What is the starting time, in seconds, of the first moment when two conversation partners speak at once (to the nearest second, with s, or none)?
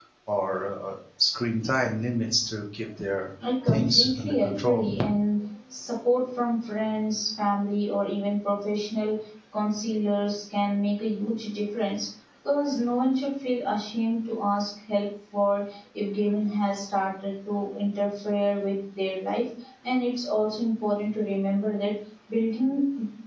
4 s